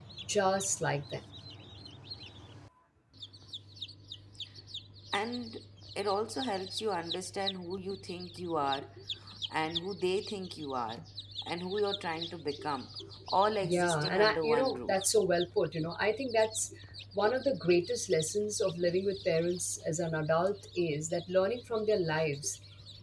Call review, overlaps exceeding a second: present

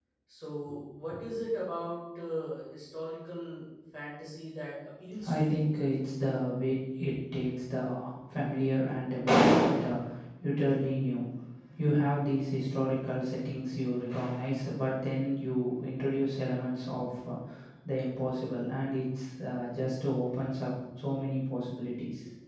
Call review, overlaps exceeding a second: none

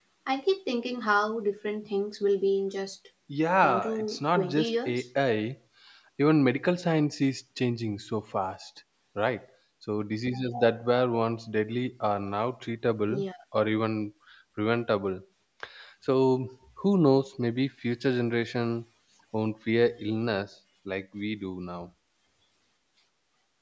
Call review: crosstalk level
present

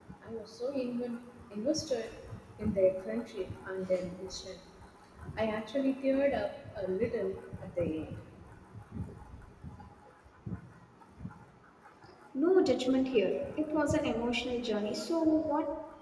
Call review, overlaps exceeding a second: none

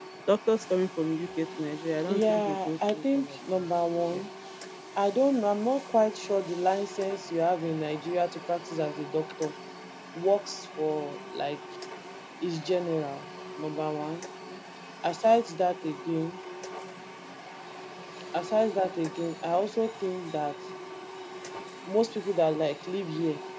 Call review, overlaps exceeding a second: present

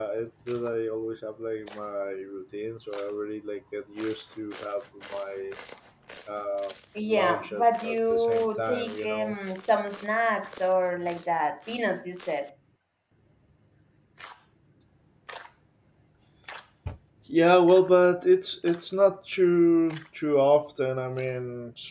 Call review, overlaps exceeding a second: present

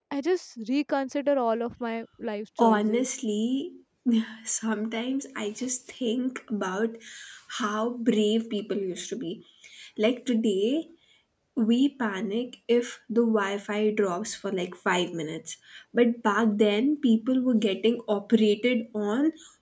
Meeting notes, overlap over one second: none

